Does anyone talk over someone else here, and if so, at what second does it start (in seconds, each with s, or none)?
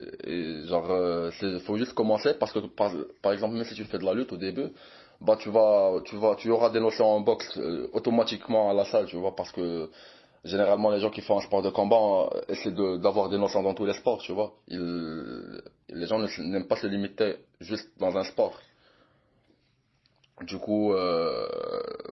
none